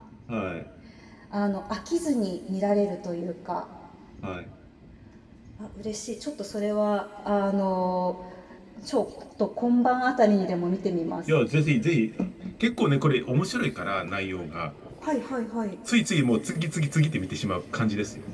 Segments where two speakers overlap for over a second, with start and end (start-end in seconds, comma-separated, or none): none